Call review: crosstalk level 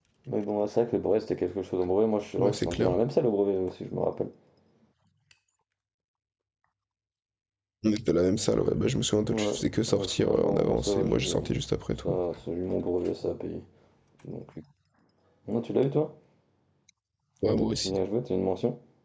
present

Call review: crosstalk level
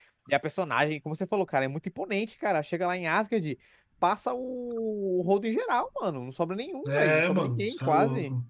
present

